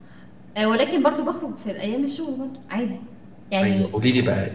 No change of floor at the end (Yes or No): No